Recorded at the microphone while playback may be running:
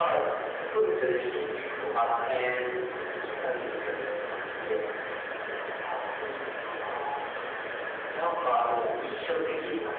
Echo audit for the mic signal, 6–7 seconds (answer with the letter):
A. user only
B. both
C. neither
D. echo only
D